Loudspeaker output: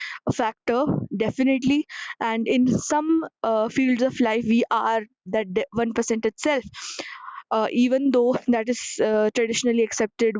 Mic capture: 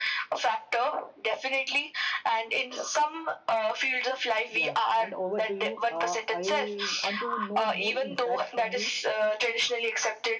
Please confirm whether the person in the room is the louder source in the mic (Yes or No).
No